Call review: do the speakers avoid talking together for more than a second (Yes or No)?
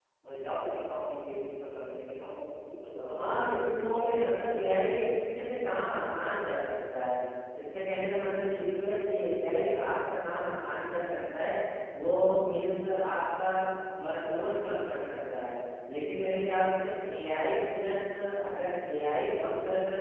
No